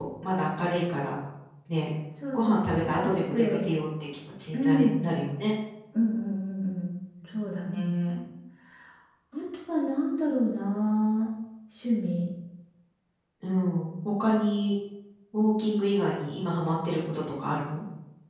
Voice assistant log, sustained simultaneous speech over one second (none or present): present